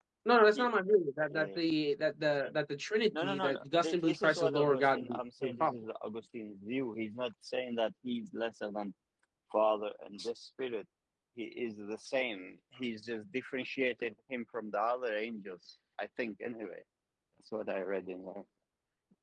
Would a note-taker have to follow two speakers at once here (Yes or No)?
Yes